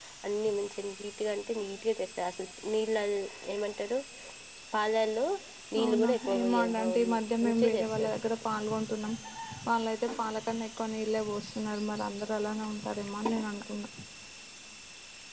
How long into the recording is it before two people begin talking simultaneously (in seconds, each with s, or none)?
5.8 s